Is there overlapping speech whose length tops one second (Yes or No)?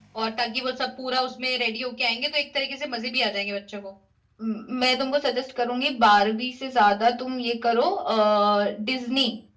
No